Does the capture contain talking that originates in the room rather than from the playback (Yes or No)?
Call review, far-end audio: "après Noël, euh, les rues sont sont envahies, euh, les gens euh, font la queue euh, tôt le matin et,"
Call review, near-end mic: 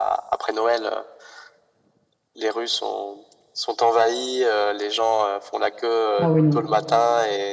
Yes